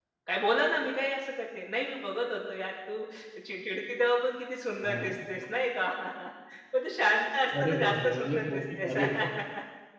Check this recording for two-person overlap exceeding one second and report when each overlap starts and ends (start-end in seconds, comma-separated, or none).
7.6-8.9